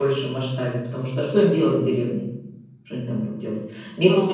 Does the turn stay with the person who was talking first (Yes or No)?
No